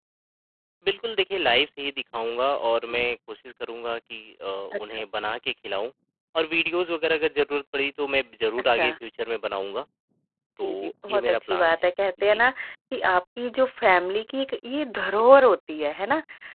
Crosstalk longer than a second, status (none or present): present